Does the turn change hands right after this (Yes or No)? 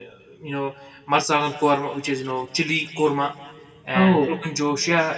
No